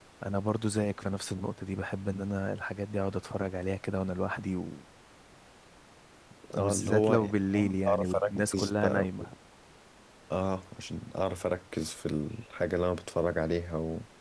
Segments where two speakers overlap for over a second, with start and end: 6.6-9.1

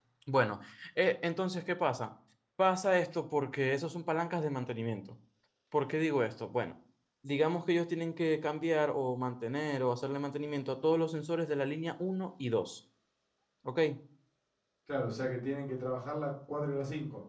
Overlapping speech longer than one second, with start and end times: none

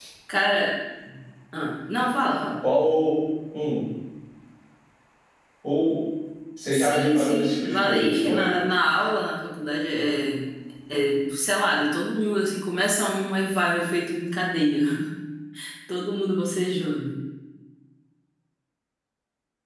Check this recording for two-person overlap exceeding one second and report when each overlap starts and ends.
6.7-8.5

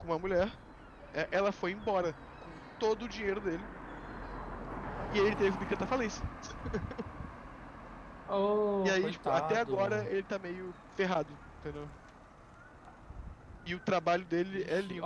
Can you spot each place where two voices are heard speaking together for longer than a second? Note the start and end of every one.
8.9-10.1

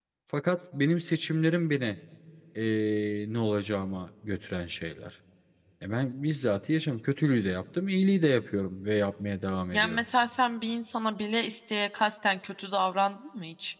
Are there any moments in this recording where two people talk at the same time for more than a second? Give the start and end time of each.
none

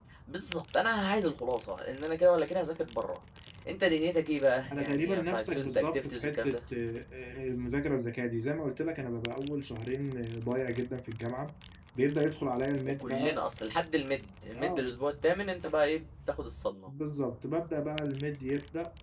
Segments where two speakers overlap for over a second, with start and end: 4.8-6.6

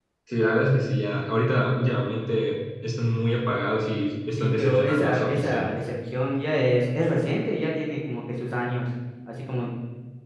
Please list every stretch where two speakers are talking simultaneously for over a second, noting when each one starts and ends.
4.4-5.8

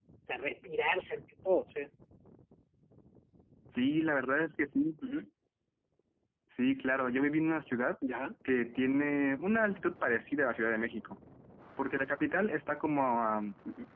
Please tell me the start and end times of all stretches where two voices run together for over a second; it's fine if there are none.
none

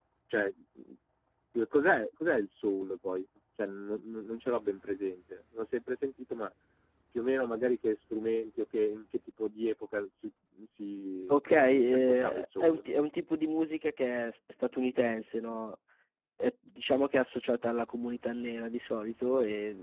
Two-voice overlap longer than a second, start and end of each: 11.3-12.8

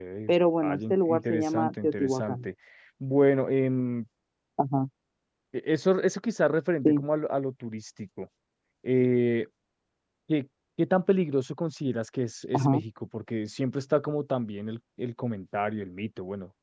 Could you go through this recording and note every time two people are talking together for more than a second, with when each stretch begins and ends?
0.6-2.5

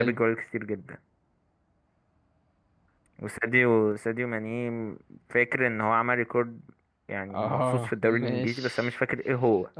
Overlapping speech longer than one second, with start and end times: 7.3-8.9

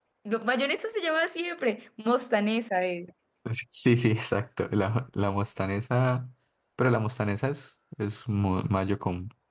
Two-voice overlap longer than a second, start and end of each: none

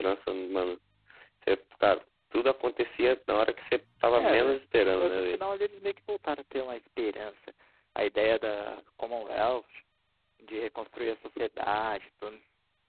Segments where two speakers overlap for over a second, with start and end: 4.2-5.4

